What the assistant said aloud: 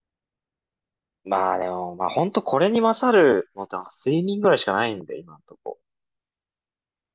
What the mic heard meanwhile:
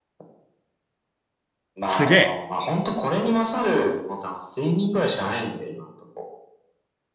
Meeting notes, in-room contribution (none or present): present